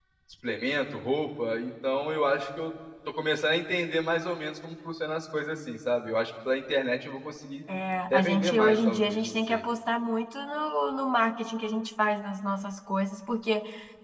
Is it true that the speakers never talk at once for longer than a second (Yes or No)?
No